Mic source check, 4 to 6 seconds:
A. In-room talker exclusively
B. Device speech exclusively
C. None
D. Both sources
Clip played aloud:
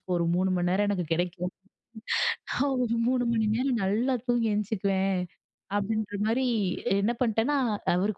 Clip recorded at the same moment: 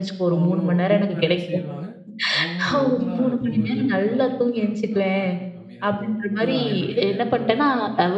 D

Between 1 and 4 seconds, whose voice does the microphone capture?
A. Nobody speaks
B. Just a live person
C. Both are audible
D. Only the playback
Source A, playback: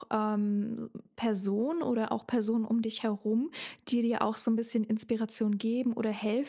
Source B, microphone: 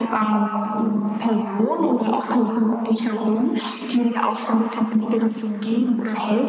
D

